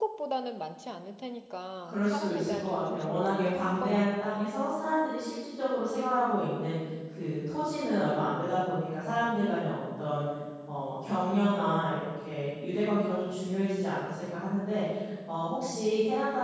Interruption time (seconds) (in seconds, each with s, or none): 1.9 s